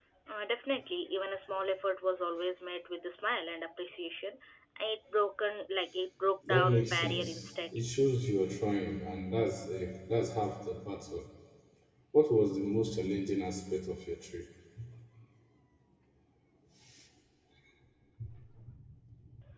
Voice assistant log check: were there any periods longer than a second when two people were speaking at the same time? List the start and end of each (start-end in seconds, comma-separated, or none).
6.5-7.9